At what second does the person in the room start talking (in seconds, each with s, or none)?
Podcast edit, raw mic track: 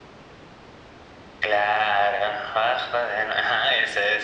none